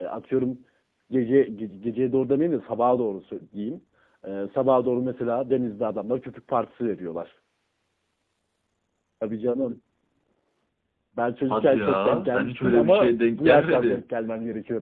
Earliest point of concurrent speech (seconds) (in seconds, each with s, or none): 11.5 s